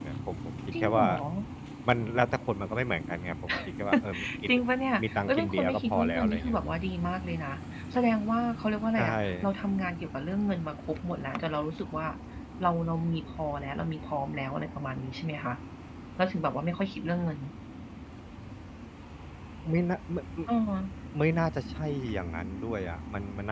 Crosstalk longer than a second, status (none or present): present